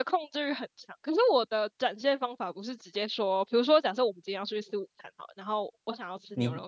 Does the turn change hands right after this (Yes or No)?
Yes